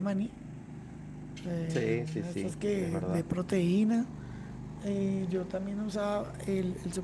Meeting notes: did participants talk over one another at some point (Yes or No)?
Yes